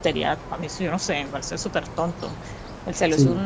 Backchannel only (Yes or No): Yes